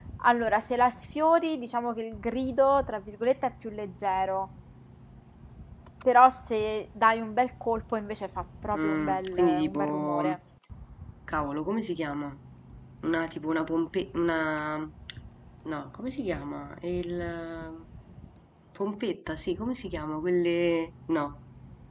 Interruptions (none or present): present